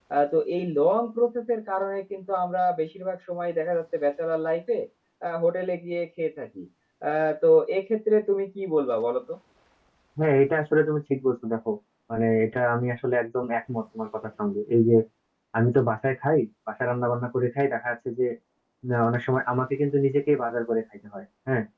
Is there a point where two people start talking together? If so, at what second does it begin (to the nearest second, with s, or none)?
none